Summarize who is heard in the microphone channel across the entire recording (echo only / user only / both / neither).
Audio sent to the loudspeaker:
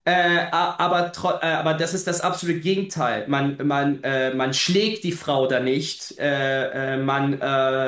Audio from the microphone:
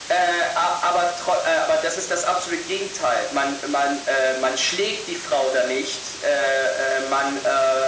echo only